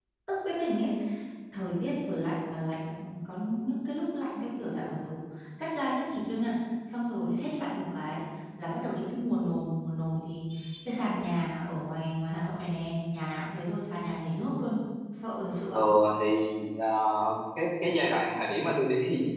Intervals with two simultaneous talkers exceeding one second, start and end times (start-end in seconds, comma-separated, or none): none